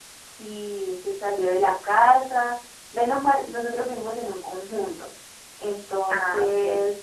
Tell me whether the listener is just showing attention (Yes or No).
Yes